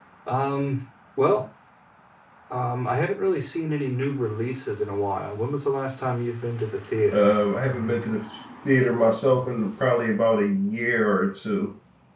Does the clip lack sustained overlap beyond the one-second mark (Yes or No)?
Yes